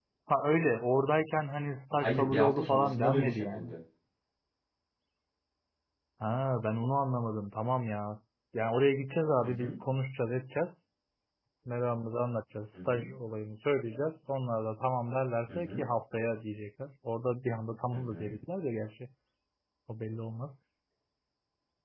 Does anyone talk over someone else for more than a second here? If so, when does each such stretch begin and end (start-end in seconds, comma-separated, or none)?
2.0-3.7